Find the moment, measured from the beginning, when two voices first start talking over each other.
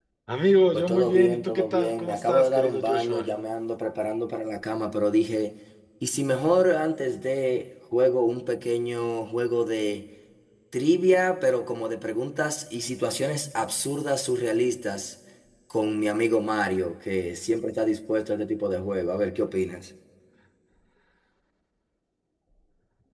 0.7 s

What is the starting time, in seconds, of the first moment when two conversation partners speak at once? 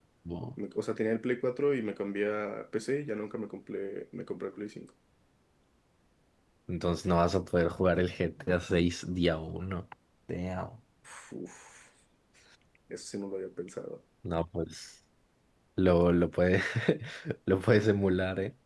none

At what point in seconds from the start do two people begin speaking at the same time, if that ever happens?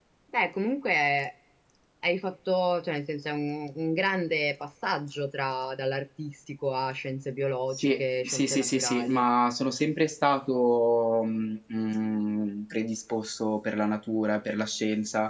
7.7 s

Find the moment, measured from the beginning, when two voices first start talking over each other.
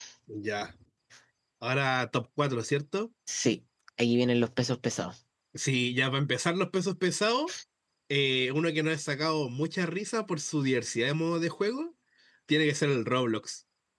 none

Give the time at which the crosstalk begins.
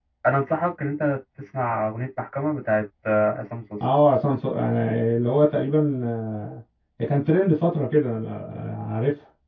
none

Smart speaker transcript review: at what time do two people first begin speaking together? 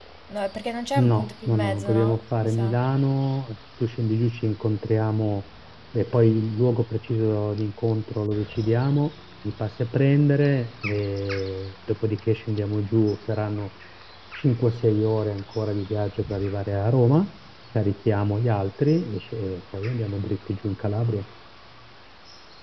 0.9 s

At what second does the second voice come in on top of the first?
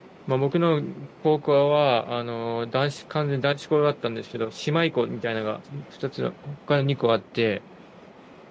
none

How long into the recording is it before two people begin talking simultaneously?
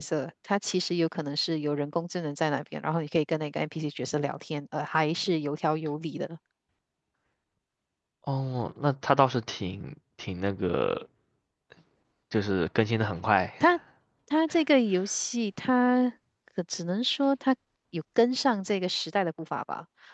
none

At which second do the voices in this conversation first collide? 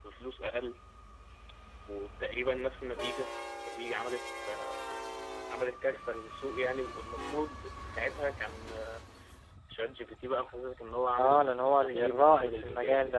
11.1 s

